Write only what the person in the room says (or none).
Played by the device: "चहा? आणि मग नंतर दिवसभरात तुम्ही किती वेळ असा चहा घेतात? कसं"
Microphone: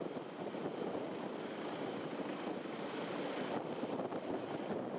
none